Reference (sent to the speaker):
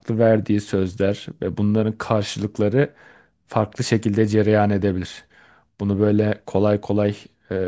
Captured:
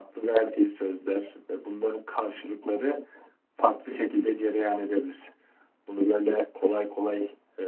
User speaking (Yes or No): No